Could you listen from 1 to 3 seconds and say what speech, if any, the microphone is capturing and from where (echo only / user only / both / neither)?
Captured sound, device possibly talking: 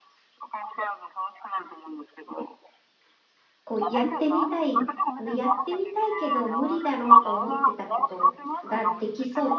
echo only